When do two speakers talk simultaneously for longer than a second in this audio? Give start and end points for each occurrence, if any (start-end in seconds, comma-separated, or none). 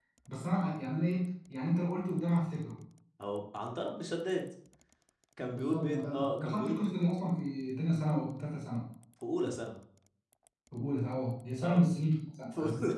5.5-6.9